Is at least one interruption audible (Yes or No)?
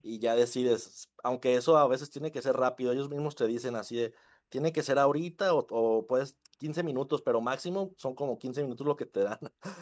No